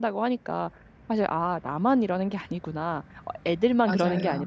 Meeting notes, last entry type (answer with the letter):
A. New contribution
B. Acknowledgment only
B